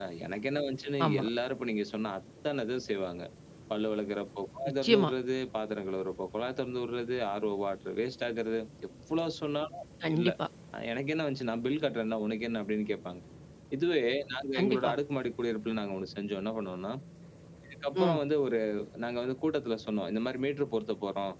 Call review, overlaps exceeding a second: none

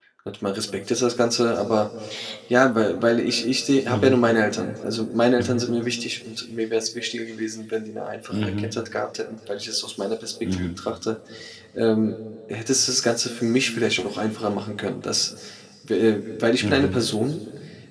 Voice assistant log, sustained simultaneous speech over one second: none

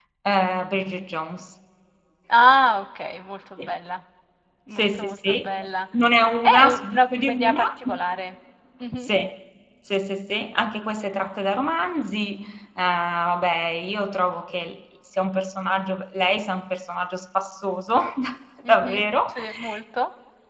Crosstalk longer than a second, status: present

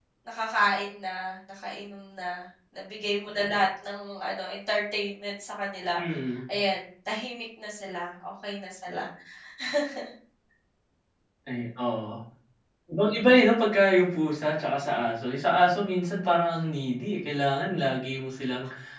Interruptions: none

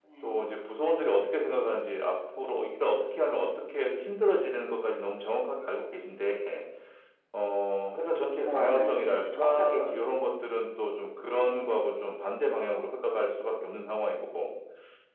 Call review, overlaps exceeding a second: present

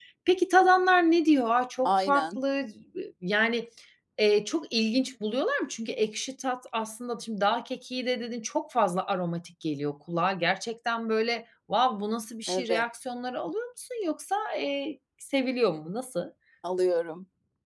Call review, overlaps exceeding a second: none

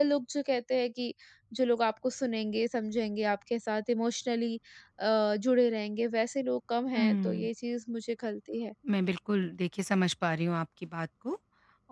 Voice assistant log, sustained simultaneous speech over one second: none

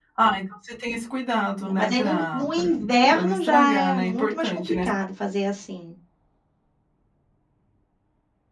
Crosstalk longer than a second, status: present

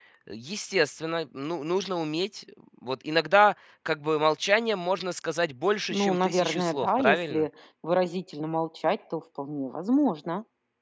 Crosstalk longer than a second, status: present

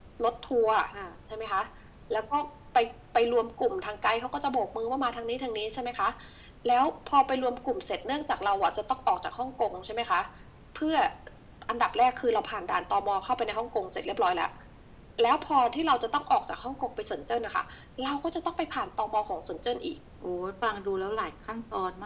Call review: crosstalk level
none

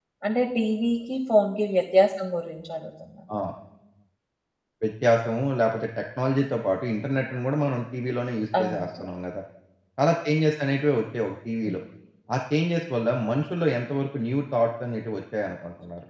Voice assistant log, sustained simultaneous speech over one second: none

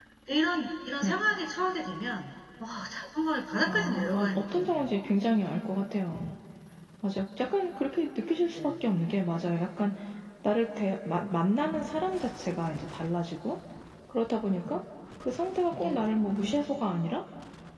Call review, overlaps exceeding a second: present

